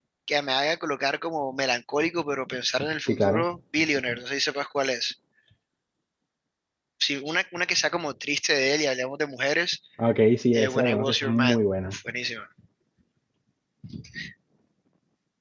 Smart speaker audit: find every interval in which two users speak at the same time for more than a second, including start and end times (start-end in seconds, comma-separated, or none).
10.5-12.0